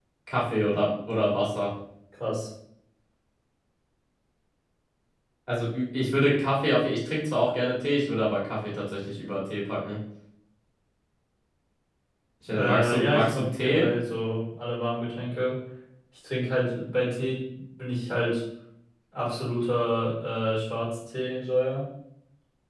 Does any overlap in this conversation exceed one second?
Yes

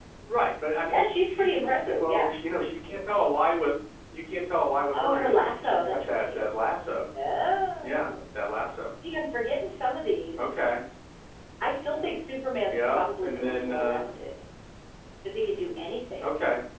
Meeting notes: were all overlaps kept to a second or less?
No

